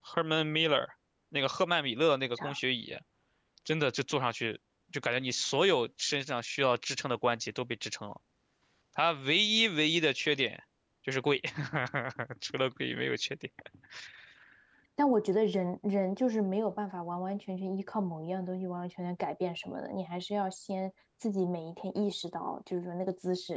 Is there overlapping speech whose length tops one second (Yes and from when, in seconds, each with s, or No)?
No